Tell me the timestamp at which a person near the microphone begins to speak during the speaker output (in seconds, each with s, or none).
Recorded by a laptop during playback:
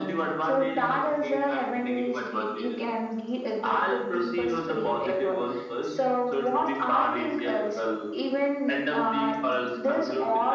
none